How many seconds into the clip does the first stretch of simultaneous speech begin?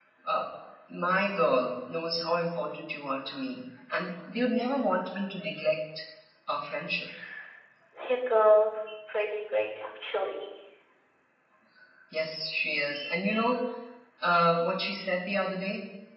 none

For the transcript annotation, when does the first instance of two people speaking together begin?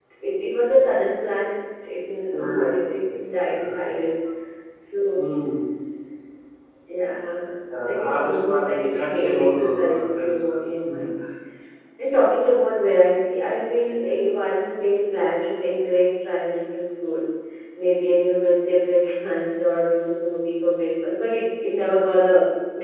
2.3 s

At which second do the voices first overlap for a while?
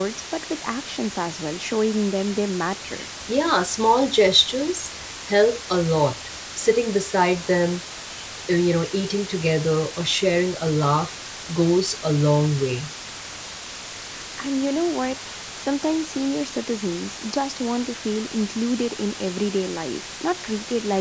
none

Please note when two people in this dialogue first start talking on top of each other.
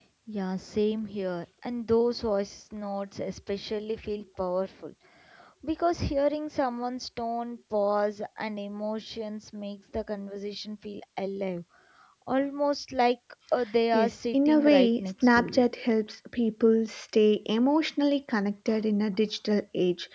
13.9 s

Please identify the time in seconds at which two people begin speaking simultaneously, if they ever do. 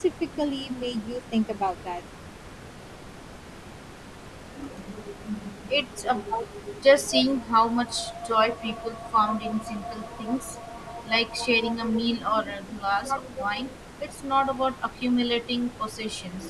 none

